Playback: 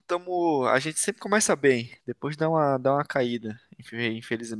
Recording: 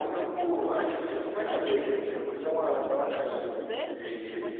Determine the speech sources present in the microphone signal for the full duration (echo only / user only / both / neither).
both